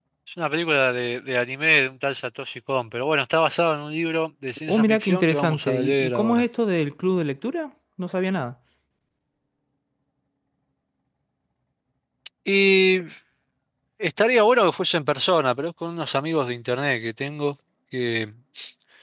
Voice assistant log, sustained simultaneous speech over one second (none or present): present